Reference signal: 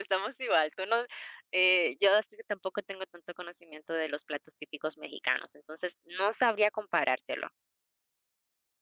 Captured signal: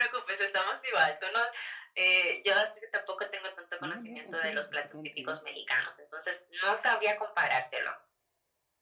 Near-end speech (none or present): present